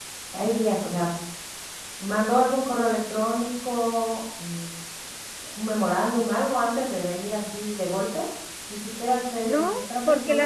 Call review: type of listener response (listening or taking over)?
taking over